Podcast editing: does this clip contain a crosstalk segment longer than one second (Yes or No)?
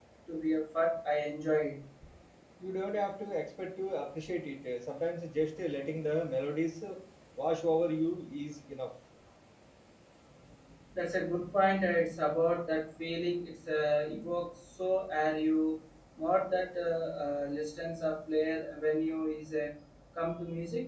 No